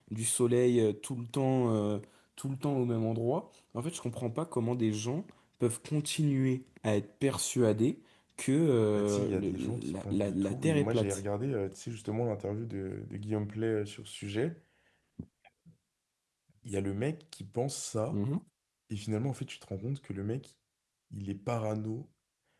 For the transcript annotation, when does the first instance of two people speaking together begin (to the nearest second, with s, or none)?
9 s